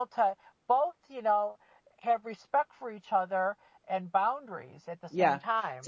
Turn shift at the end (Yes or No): Yes